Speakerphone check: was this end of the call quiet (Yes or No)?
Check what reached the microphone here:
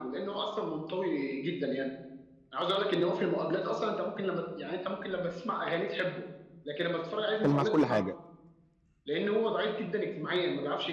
No